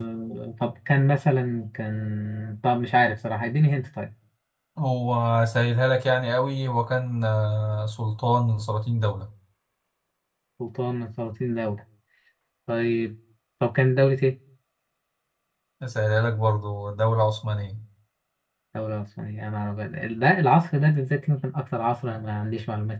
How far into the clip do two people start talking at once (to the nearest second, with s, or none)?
none